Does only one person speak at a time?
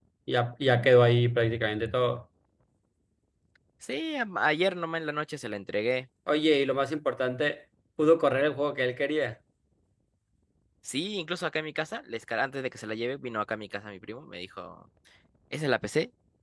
Yes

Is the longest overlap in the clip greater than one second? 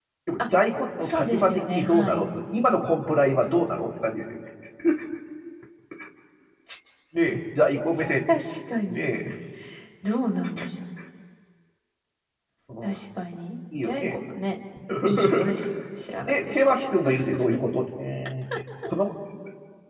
Yes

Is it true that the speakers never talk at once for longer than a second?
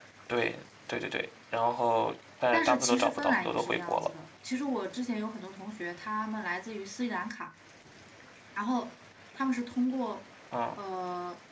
No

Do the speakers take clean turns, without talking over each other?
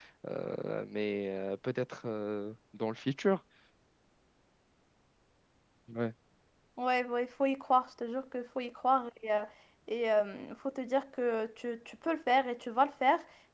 Yes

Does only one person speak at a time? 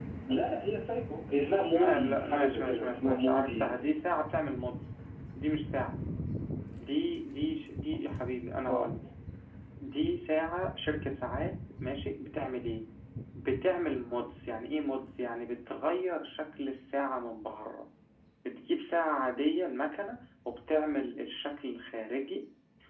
No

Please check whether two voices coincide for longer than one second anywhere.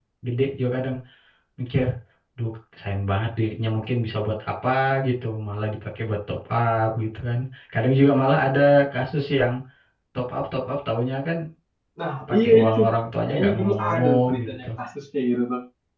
Yes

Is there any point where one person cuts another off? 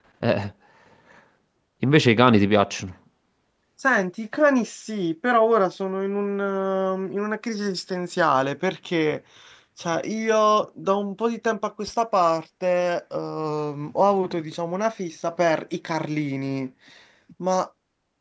No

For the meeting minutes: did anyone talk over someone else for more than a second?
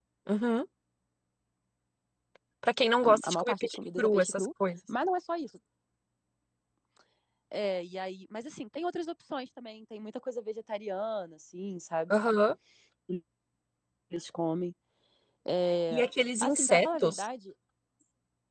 Yes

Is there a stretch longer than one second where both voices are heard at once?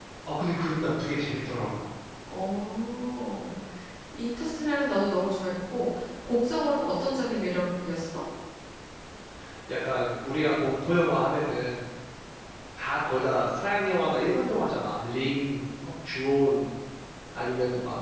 No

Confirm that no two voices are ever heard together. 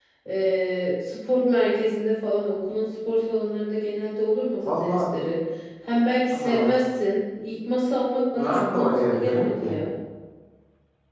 No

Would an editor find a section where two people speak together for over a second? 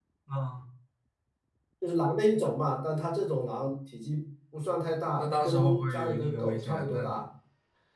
Yes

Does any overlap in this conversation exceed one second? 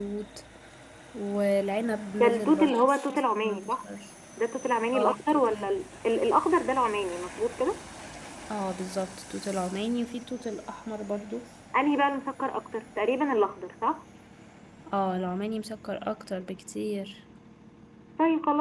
Yes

